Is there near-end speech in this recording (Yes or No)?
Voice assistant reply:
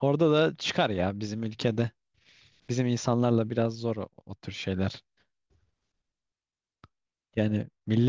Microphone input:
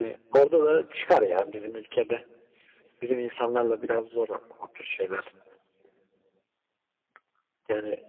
No